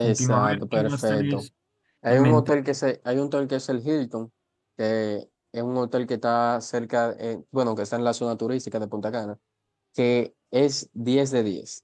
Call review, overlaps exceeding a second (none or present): present